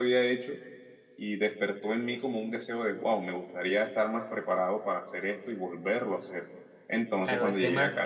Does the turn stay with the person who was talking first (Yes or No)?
No